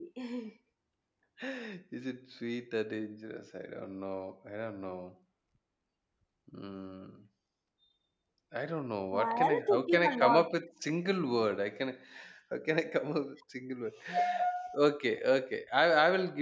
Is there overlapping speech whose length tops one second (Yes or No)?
Yes